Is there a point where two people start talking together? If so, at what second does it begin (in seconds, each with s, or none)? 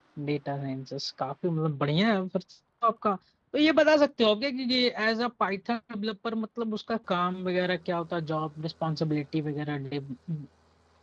none